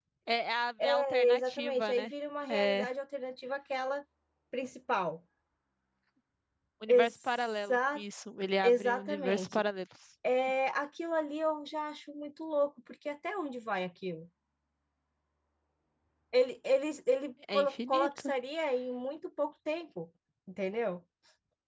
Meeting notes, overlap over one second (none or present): present